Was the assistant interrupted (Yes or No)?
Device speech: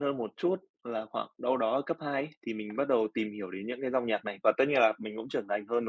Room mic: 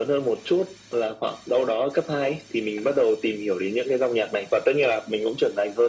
No